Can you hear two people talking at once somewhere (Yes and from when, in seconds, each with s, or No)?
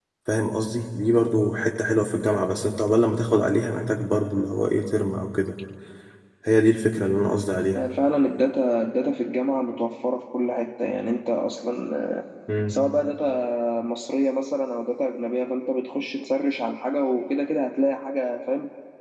No